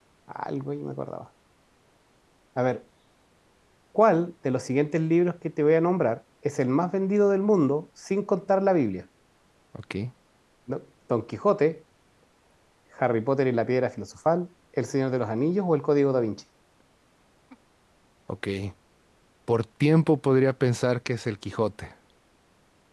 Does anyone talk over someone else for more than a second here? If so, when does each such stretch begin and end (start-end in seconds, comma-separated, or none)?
none